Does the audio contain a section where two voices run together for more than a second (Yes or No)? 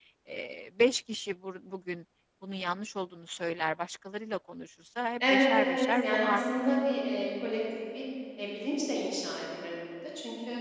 Yes